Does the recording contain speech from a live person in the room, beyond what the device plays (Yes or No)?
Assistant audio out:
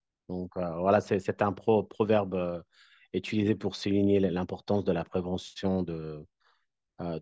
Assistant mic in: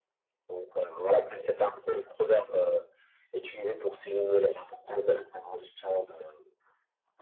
No